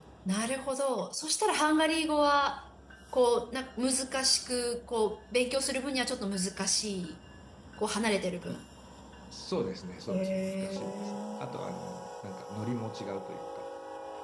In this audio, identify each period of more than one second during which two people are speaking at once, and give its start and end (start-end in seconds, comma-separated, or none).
10.1-11.4